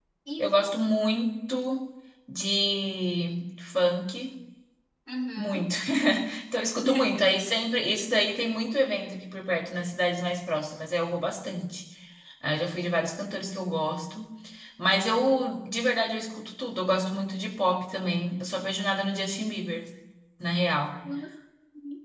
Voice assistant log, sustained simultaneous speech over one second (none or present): none